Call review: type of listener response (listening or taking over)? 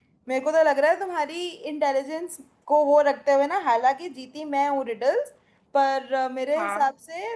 listening